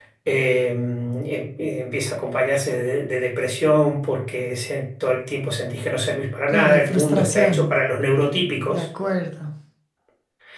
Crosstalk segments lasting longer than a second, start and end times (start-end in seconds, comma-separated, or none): 6.5-7.8